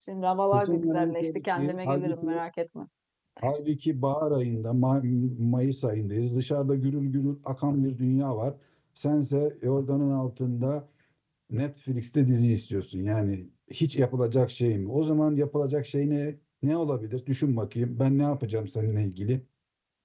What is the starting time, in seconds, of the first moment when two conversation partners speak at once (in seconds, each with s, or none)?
0.5 s